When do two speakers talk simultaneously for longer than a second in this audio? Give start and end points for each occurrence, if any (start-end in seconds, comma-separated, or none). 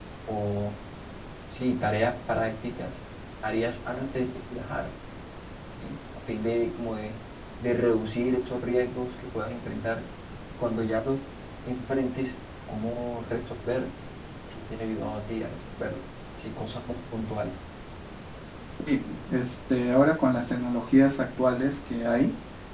none